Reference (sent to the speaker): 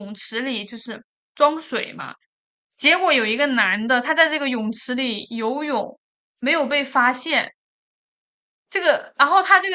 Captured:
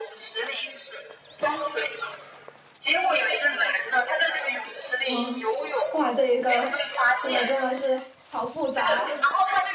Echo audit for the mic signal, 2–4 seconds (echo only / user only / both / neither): echo only